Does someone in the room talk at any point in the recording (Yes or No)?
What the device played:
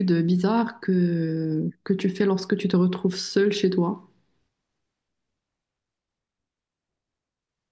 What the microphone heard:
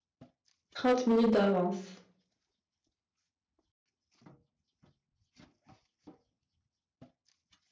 Yes